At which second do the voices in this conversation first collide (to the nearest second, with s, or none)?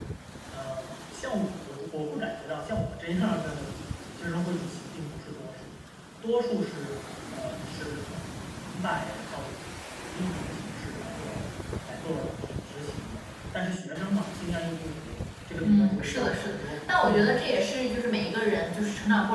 16 s